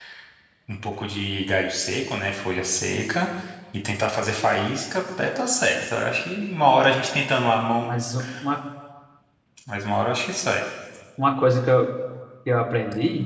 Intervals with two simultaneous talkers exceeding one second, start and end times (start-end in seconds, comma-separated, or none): none